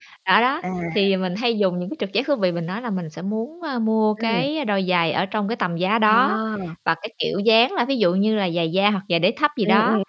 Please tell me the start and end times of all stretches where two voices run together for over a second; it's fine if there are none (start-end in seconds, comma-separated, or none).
none